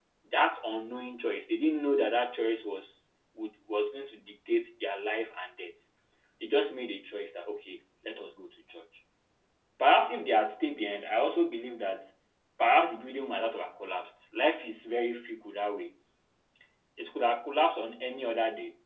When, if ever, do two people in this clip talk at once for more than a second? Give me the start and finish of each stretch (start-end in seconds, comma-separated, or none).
none